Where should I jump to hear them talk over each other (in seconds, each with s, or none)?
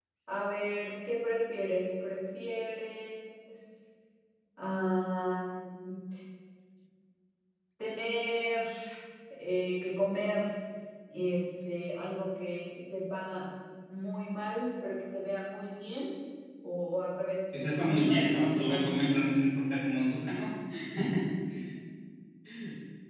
17.5 s